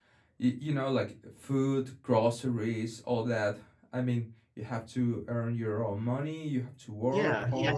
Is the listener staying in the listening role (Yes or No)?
No